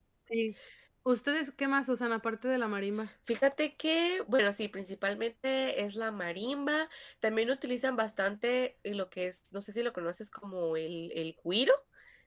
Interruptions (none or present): none